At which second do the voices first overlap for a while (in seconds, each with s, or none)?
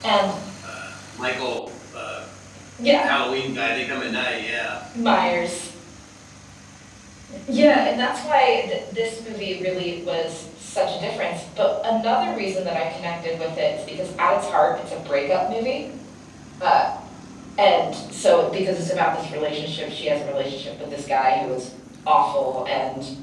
none